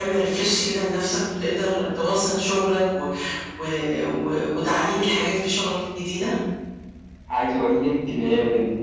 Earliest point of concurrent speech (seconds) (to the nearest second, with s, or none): none